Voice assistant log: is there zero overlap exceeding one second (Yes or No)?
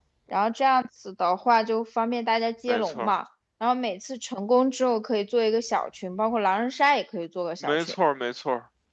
Yes